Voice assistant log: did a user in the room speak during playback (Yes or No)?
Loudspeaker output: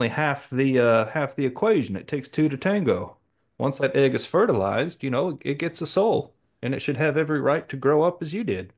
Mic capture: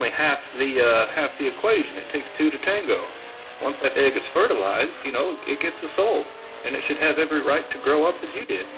No